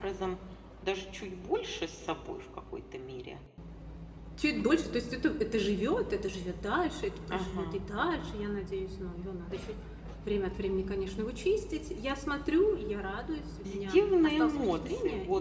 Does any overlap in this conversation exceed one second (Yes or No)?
Yes